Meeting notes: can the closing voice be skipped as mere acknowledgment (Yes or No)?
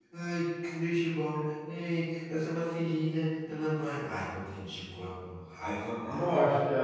No